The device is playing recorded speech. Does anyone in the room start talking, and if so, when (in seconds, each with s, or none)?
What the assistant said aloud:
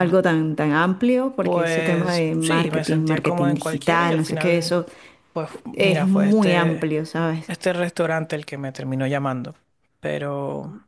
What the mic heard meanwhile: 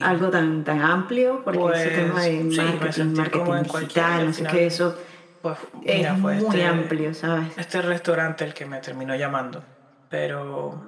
none